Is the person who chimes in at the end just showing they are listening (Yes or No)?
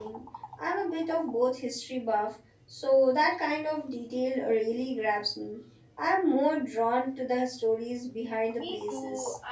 No